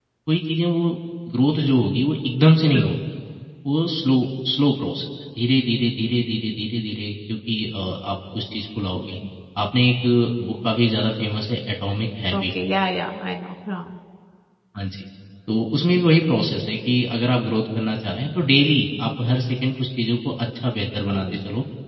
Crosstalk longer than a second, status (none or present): none